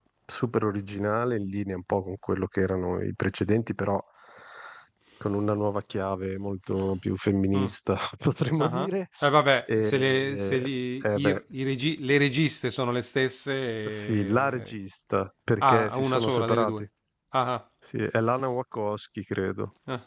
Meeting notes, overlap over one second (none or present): present